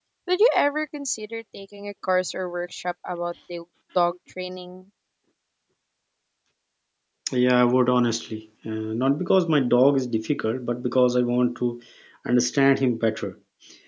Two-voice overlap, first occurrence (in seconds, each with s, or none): none